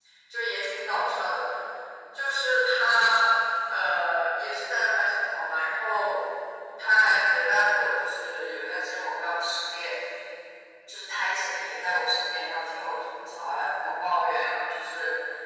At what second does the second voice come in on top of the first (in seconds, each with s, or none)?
none